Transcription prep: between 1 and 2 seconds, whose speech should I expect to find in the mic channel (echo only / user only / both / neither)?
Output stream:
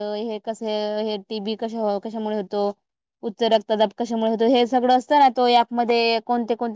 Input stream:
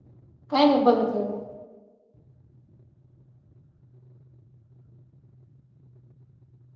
user only